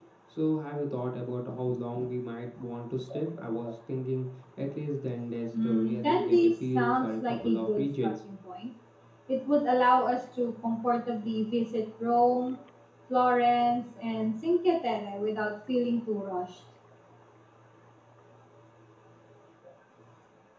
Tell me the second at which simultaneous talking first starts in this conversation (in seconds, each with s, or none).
5.5 s